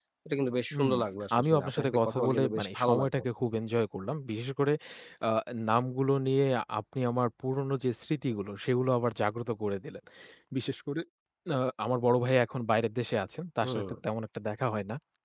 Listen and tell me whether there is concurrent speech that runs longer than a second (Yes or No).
Yes